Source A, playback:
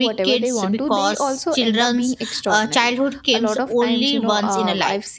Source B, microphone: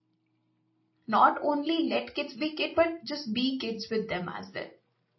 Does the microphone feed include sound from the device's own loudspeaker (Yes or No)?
No